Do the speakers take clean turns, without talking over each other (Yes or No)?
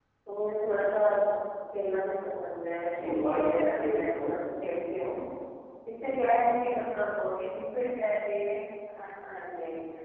No